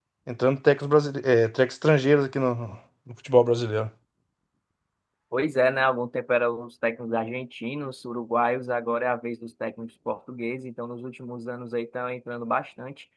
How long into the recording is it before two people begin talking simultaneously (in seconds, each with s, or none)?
none